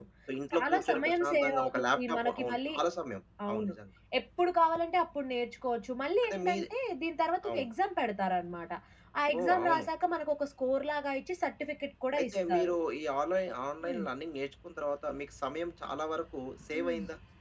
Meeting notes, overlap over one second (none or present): present